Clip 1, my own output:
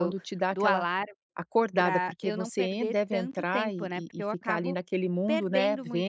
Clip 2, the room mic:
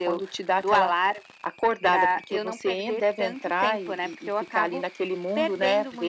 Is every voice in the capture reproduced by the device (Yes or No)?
Yes